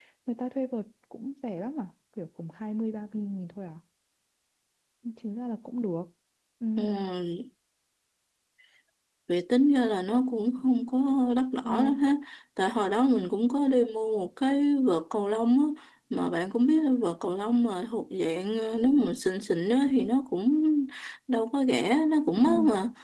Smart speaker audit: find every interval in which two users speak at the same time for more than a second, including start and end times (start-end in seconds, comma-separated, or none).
none